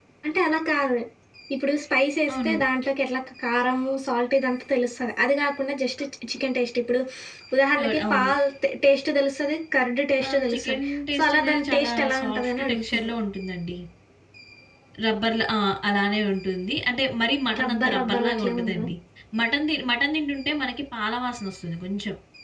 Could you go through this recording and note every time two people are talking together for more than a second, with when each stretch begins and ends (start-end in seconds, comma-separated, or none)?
10.3-13.1, 17.6-18.9